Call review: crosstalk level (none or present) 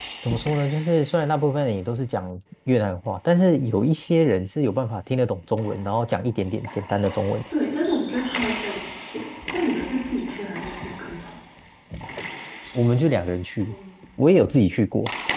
none